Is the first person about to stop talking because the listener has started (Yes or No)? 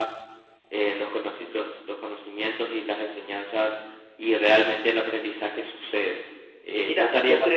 Yes